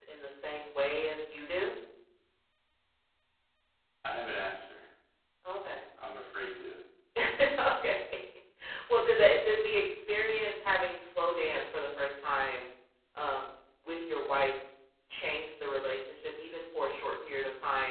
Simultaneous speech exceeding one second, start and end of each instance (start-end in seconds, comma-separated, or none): none